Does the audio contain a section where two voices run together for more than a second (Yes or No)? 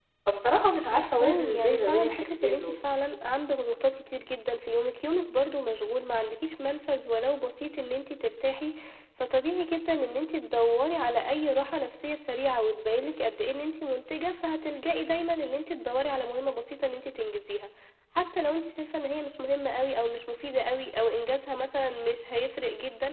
Yes